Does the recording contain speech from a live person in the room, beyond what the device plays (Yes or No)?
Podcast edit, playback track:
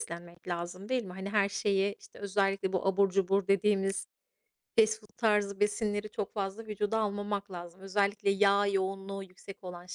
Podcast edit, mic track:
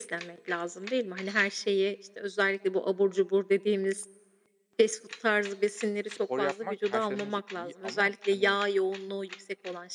Yes